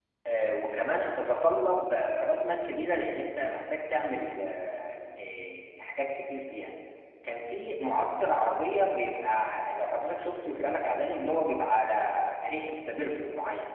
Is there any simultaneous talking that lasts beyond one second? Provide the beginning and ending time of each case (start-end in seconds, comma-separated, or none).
none